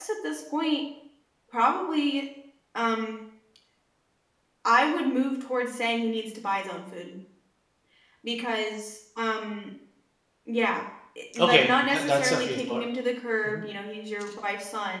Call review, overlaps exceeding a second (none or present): present